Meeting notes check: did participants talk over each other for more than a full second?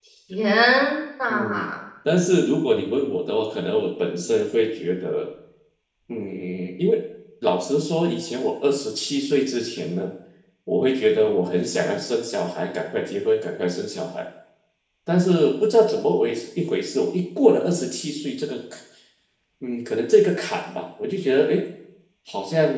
No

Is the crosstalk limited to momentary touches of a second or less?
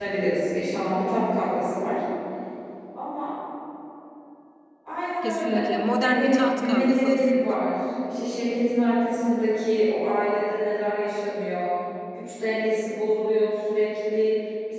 No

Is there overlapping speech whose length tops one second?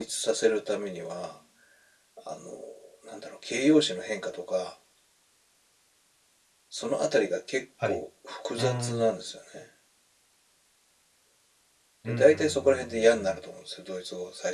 Yes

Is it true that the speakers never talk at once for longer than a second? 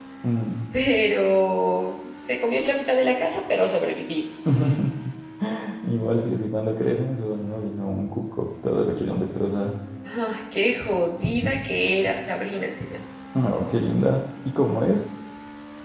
Yes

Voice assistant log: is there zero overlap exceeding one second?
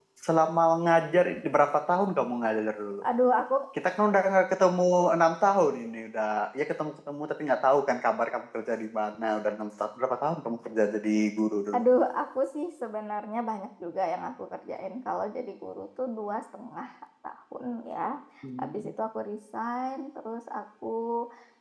Yes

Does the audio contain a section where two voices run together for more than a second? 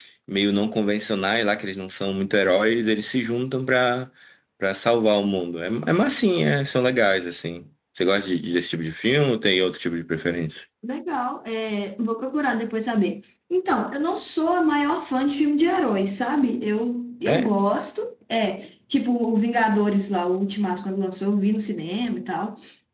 No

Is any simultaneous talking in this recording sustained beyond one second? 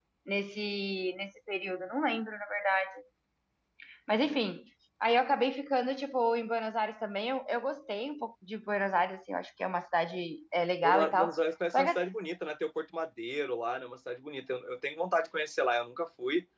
No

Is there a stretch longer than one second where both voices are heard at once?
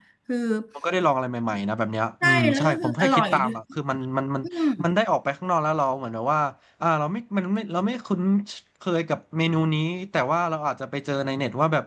Yes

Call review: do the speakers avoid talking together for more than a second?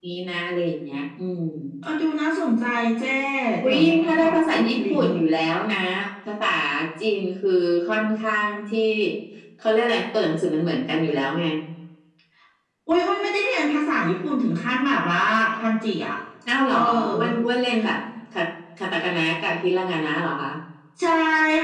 No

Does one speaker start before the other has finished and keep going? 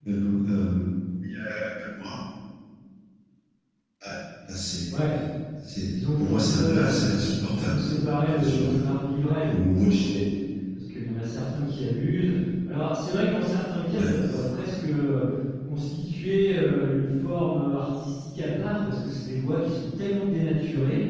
Yes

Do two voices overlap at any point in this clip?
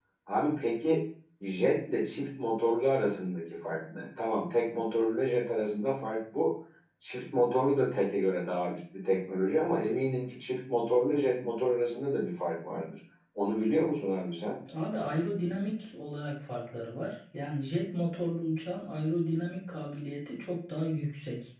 No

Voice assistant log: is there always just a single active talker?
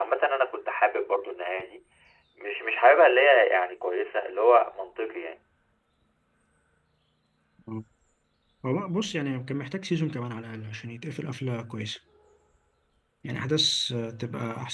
Yes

